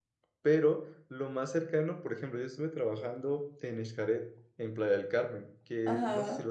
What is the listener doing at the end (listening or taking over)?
listening